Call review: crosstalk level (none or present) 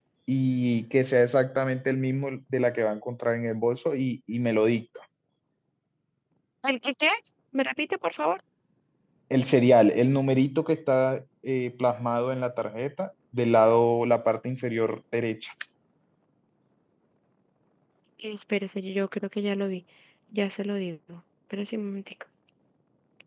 none